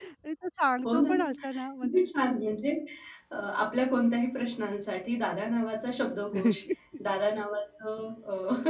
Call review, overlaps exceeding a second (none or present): none